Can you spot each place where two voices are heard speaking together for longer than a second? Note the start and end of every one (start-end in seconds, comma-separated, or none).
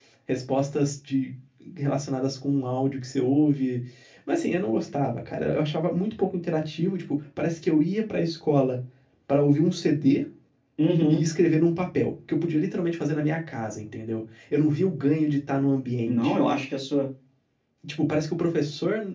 none